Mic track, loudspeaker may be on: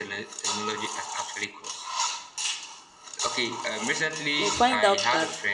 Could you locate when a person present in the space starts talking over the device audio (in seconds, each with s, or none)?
4.3 s